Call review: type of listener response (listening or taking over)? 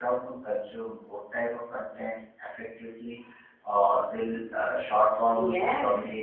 taking over